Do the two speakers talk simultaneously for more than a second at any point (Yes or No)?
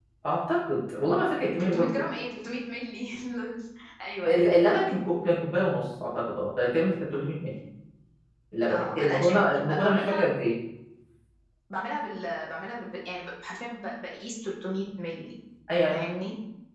Yes